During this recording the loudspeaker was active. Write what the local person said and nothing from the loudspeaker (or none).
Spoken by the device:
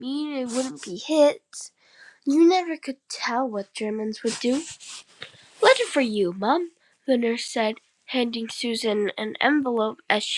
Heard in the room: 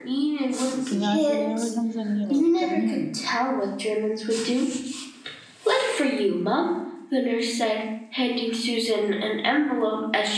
안녕하세요. 현서님, 에리카님.